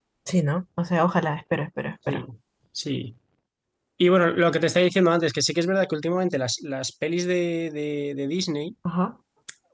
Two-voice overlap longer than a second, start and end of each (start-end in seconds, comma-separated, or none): none